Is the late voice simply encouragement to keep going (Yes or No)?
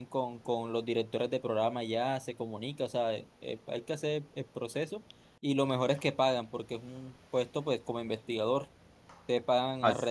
Yes